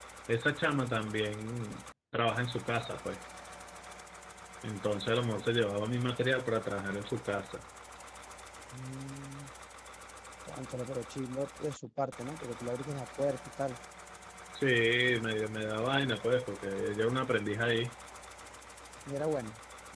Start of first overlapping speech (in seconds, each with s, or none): none